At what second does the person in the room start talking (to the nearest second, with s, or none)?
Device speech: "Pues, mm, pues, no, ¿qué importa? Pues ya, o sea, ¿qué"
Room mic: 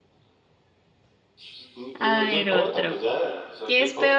2 s